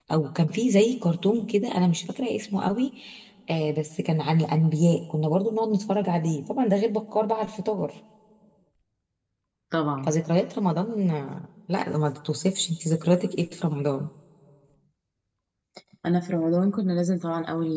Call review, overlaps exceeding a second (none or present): none